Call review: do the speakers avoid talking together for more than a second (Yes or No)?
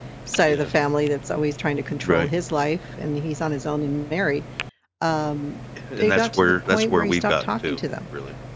No